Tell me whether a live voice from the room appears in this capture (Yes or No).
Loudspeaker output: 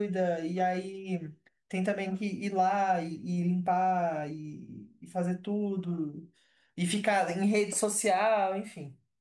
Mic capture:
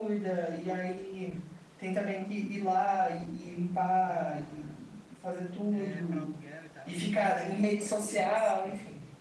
Yes